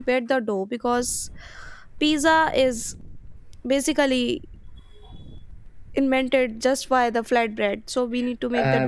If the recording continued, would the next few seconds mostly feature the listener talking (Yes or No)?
Yes